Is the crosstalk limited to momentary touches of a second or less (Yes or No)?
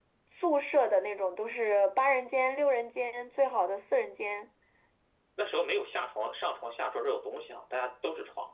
Yes